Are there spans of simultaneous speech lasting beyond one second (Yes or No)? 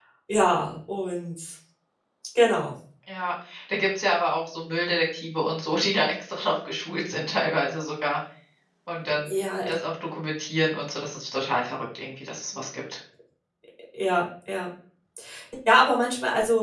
No